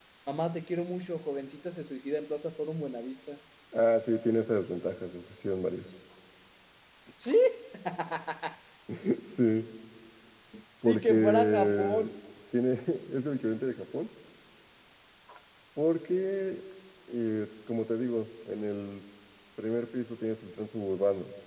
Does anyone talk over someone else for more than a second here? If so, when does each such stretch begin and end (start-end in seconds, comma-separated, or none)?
10.8-12.1